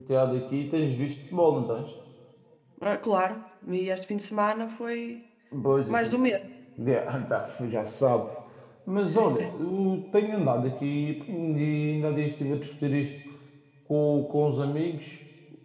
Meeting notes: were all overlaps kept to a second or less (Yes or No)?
Yes